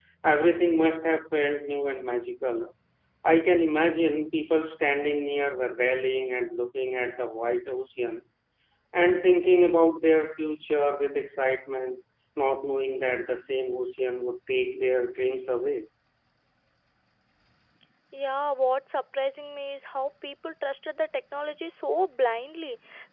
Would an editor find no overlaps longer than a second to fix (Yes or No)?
Yes